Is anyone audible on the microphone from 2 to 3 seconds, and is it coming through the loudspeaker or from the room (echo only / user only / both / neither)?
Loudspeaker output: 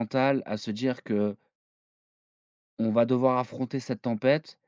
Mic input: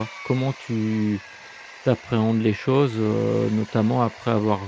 user only